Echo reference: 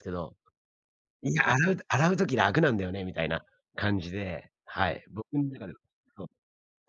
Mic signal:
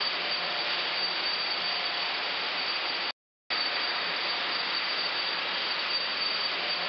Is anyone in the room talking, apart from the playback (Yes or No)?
No